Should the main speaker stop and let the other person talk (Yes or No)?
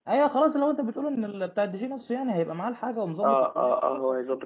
Yes